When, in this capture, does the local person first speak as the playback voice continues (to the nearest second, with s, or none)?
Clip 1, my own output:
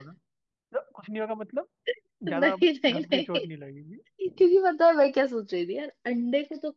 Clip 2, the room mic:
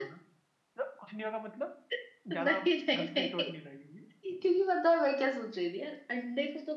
none